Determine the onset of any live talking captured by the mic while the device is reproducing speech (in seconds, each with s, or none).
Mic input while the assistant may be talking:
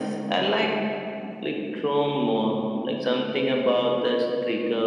none